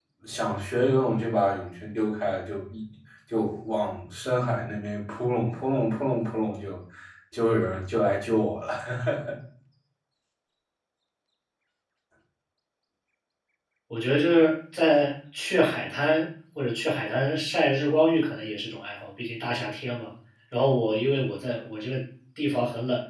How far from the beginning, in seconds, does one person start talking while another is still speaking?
none

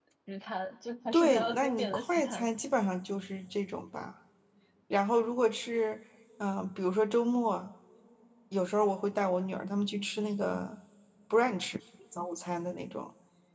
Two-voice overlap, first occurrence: 1.1 s

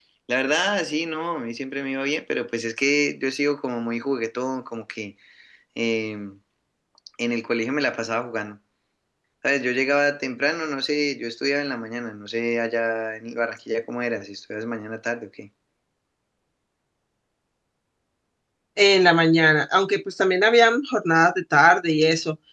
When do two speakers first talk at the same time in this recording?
none

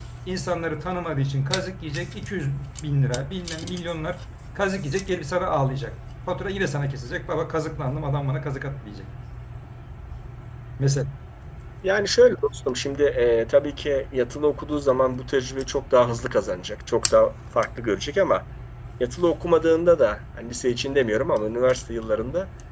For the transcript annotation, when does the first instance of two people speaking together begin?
none

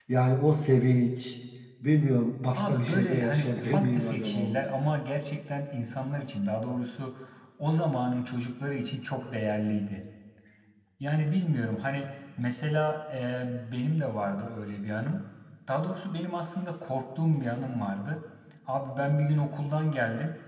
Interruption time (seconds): 2.5 s

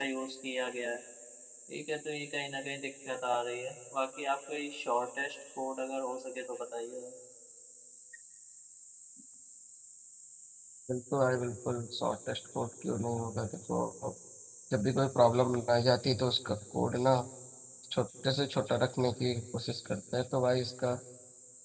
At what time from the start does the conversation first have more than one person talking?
none

